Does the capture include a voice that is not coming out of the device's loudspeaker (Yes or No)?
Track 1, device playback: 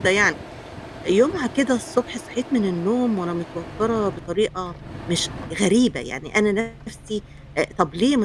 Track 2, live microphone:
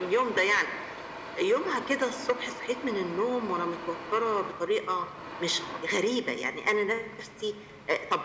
No